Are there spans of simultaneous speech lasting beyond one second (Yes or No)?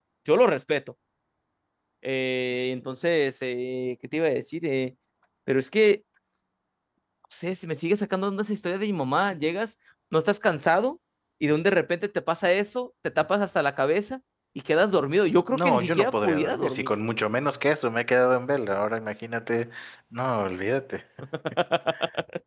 Yes